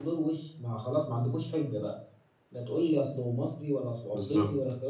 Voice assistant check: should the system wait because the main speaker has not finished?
Yes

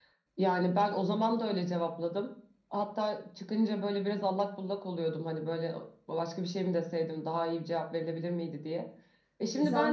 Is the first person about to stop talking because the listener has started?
Yes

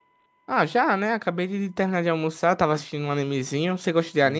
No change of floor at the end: No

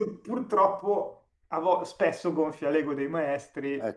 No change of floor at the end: Yes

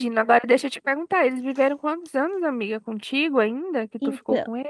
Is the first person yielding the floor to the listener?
Yes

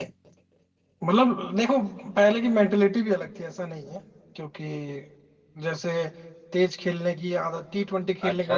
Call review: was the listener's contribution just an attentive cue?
No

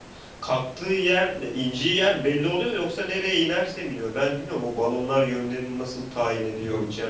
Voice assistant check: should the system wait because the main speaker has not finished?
Yes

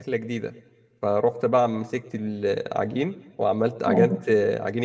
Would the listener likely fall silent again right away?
Yes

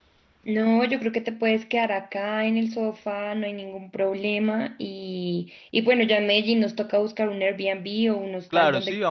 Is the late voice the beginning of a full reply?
Yes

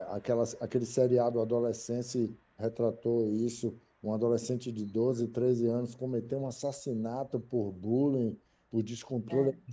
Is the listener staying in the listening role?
Yes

